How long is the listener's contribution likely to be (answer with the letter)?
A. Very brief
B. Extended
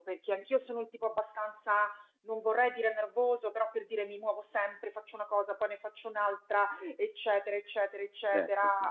A